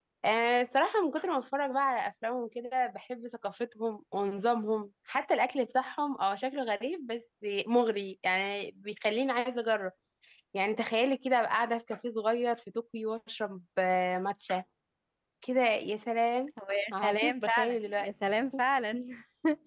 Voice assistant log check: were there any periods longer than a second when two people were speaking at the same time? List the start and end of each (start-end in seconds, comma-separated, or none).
16.9-18.1